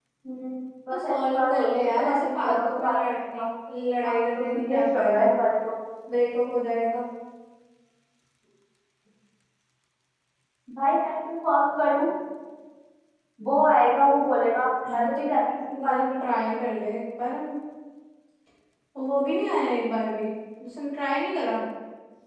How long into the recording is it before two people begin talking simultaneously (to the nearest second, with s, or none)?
1 s